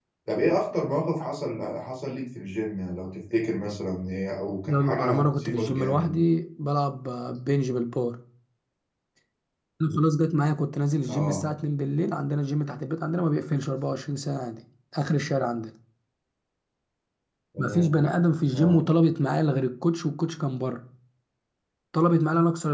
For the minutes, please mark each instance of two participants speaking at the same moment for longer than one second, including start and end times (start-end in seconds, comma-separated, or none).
4.7-6.2